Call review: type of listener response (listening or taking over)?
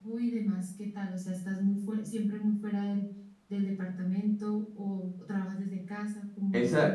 taking over